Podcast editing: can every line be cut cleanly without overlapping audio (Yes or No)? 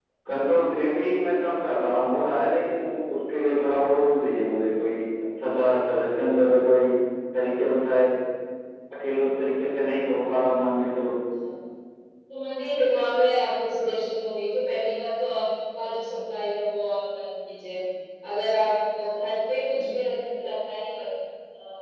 Yes